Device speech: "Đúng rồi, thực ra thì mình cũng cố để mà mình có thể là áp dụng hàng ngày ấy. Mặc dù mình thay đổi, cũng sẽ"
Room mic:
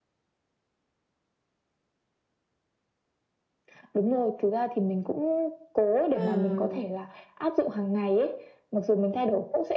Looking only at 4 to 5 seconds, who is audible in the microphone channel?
echo only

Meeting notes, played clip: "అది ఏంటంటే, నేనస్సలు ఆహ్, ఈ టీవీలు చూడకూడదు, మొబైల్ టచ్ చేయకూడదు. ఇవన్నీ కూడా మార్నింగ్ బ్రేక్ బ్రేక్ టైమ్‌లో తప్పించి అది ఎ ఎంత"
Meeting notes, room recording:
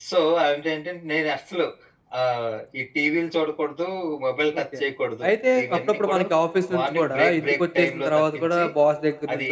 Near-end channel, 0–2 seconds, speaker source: echo only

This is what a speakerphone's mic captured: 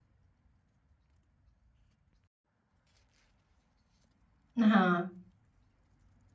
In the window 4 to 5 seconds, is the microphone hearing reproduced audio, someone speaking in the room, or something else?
user only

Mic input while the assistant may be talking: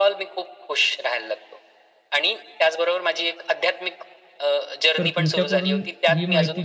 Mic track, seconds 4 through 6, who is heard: both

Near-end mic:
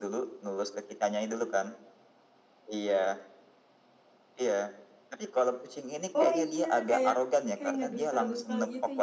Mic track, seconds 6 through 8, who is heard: both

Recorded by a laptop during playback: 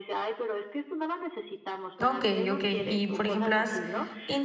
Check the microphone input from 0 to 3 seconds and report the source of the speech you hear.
both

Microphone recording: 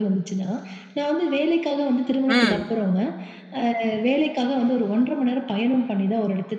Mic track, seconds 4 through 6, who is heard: echo only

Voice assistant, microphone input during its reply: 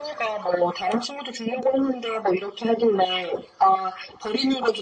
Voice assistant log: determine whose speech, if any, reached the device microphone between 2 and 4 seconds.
echo only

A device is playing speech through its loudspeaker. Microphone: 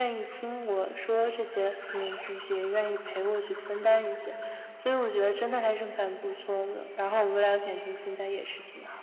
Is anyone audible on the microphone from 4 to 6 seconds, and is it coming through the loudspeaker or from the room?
echo only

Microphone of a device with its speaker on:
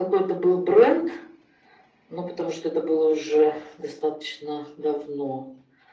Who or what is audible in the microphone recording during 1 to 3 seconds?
echo only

